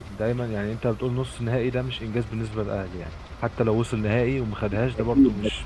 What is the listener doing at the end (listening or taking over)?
taking over